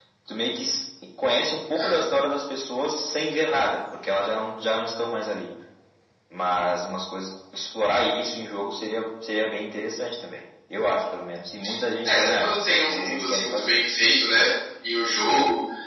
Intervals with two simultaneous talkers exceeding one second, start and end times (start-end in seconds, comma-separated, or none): 12.0-13.8